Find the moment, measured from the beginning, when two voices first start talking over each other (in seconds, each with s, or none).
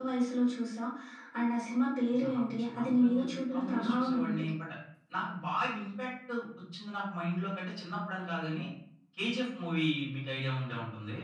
2.3 s